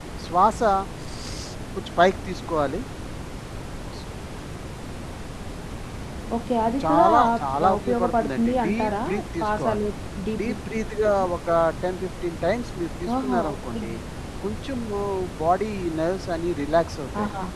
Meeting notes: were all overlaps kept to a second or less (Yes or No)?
No